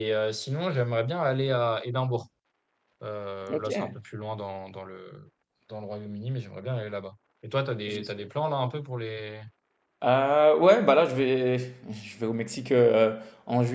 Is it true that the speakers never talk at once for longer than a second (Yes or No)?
Yes